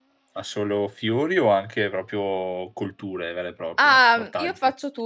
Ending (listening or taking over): taking over